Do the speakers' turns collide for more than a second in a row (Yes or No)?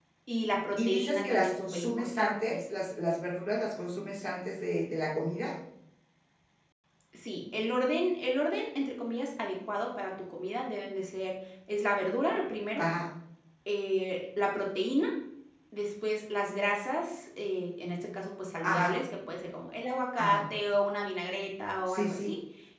Yes